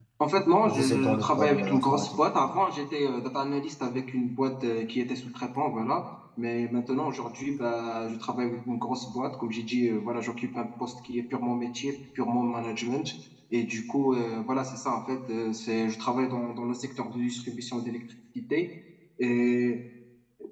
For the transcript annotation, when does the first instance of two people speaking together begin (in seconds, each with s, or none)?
0.6 s